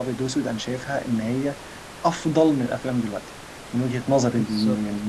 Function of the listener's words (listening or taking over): taking over